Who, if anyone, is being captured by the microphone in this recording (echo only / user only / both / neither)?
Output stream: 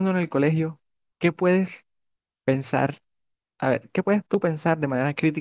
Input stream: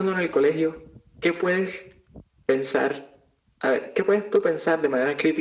echo only